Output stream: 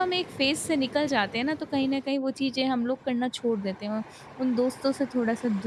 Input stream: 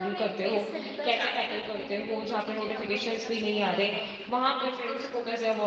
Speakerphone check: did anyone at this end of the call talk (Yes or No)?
Yes